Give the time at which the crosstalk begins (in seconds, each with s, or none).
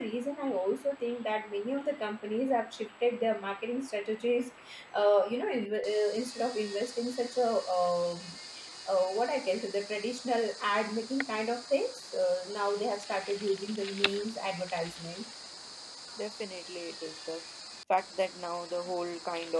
none